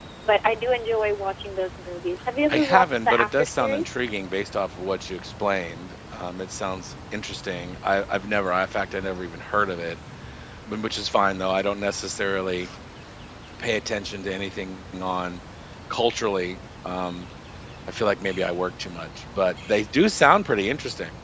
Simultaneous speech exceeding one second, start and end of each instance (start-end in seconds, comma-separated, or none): 2.5-4.0